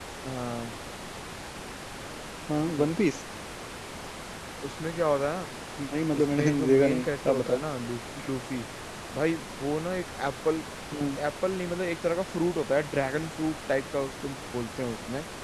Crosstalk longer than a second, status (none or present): present